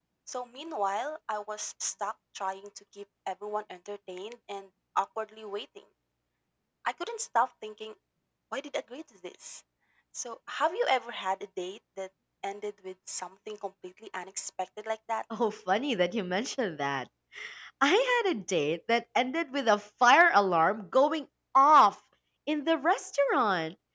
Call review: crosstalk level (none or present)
none